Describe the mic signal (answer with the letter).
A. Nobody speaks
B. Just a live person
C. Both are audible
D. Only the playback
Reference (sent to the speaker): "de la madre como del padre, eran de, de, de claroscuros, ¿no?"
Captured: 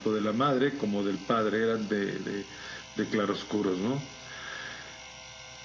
D